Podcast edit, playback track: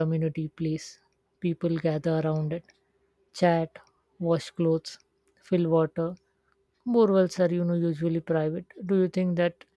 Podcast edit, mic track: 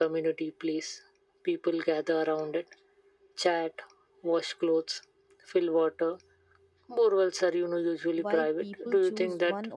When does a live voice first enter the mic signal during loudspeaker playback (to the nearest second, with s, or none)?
8 s